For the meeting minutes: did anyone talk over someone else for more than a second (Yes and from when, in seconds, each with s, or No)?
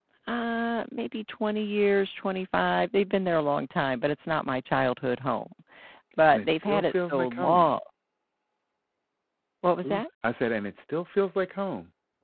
Yes, from 6.3 s